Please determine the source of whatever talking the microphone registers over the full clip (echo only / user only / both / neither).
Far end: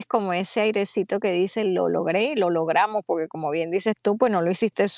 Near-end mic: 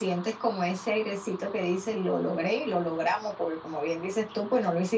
echo only